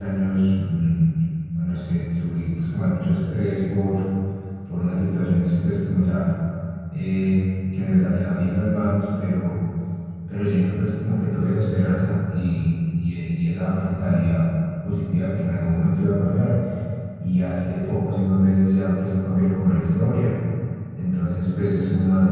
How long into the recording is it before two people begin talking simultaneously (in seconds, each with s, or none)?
none